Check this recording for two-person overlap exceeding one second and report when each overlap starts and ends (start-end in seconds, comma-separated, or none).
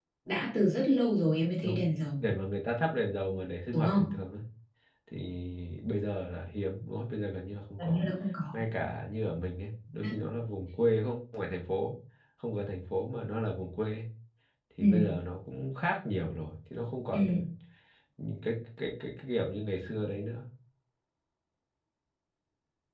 none